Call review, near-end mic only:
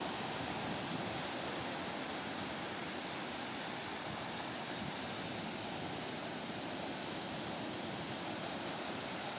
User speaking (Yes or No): No